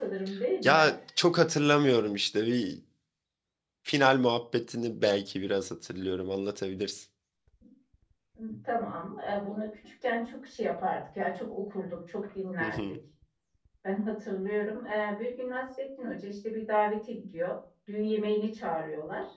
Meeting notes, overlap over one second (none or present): none